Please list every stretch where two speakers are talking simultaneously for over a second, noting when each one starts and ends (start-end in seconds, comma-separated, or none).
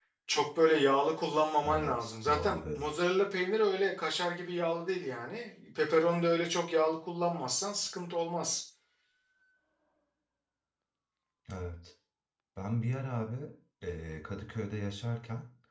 1.6-2.9